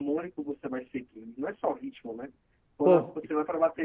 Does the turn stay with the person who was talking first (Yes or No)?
Yes